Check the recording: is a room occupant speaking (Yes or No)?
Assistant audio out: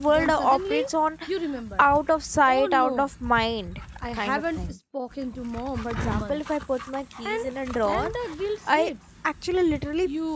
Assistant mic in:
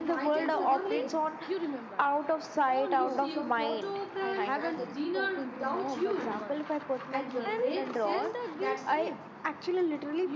Yes